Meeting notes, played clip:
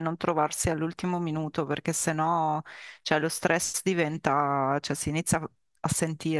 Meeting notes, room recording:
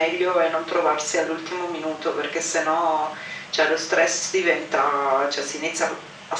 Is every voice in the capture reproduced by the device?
Yes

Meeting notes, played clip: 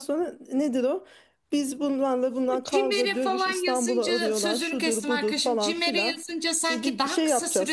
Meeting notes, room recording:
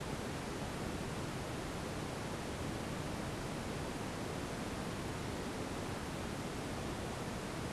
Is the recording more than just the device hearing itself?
No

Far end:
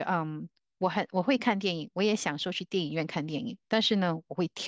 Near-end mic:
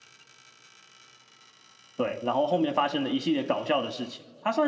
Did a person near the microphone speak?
Yes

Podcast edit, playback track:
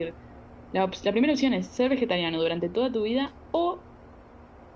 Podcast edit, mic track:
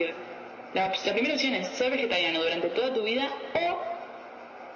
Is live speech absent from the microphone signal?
Yes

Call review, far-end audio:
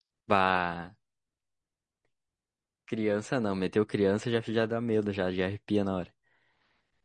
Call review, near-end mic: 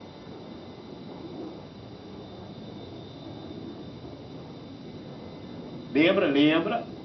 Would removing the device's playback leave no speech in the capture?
No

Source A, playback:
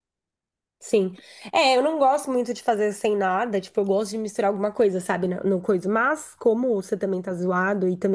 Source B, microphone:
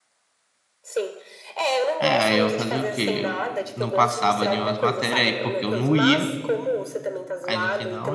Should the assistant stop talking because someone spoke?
Yes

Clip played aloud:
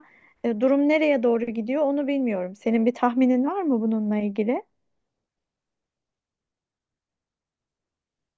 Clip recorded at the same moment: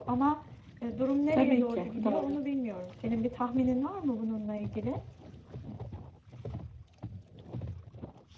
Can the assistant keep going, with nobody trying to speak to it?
No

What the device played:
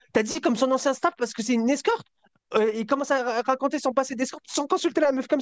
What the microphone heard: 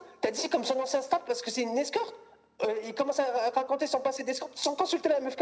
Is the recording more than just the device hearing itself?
No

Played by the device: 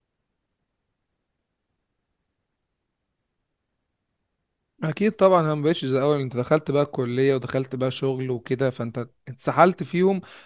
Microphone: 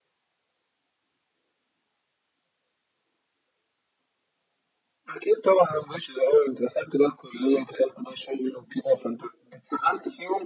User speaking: No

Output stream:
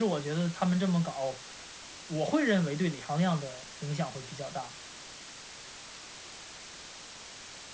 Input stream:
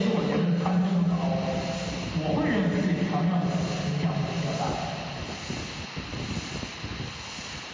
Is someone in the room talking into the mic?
No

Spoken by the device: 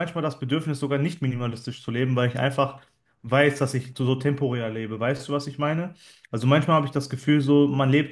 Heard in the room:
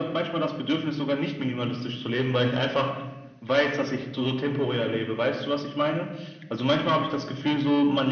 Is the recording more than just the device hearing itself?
No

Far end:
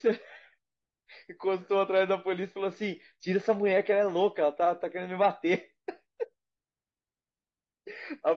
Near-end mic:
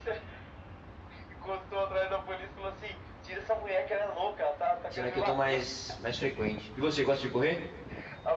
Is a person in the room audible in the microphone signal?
Yes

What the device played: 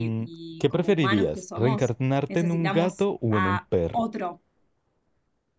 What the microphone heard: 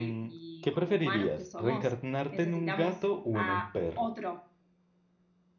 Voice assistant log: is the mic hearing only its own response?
Yes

